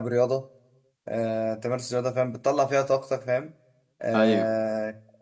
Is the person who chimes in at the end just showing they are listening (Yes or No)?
Yes